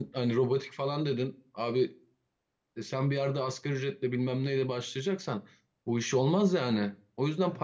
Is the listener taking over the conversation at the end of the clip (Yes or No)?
Yes